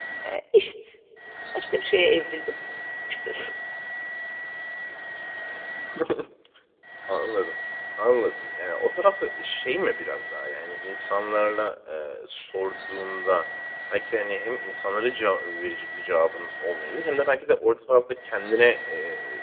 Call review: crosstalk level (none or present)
none